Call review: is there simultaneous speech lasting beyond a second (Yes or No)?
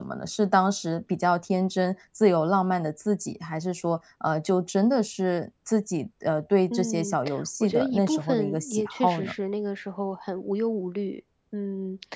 Yes